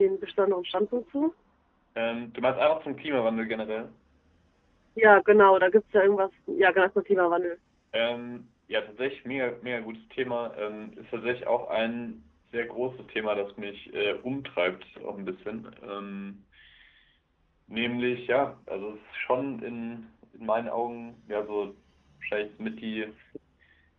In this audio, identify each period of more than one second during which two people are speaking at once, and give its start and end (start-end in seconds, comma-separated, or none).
none